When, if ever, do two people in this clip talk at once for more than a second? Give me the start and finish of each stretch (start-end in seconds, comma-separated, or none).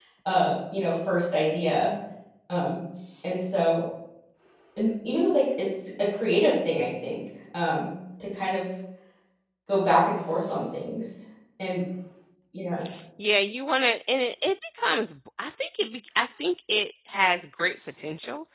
none